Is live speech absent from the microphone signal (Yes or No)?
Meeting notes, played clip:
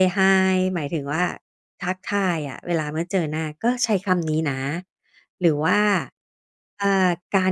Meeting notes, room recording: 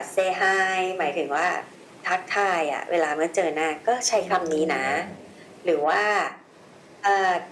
No